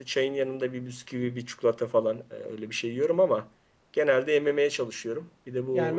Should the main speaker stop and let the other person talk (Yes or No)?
Yes